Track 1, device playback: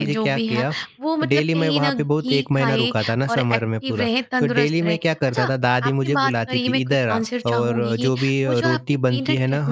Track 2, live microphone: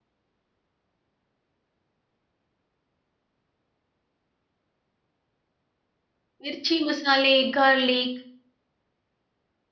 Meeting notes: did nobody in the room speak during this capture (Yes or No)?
No